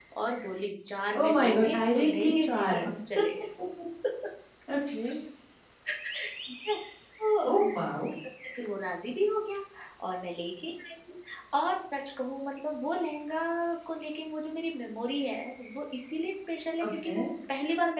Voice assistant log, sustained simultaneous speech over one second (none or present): present